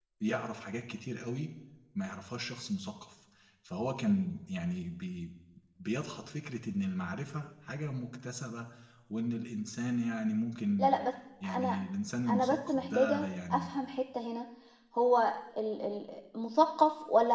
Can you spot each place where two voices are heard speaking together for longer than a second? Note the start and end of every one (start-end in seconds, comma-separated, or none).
12.3-13.7